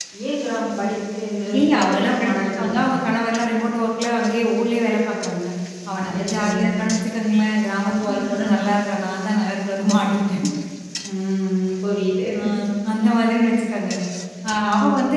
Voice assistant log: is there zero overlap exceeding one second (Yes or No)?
No